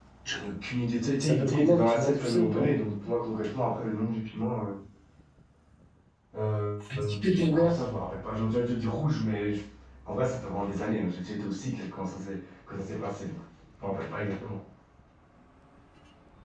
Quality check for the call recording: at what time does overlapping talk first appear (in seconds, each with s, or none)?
1.2 s